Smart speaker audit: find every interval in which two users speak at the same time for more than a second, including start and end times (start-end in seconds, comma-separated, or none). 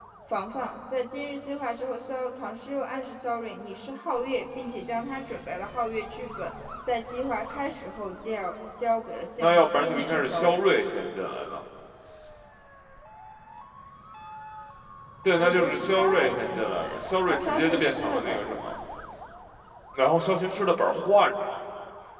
9.4-10.6, 15.4-18.4